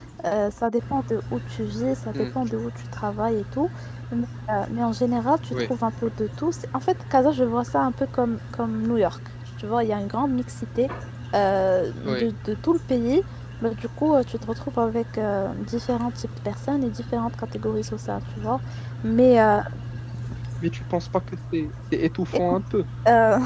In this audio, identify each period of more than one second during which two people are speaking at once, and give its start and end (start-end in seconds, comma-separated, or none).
none